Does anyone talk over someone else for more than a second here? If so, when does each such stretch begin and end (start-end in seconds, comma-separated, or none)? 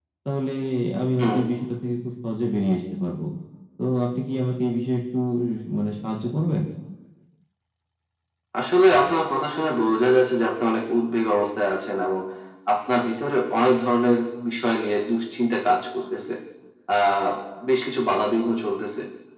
none